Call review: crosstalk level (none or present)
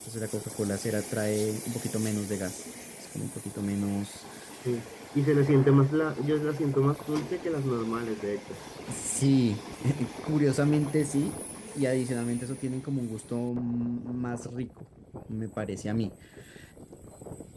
none